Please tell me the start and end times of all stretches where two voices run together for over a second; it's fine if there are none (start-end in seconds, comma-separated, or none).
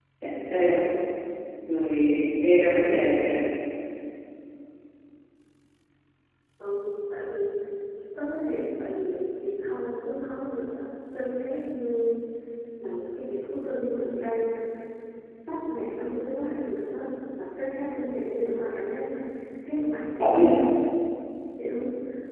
none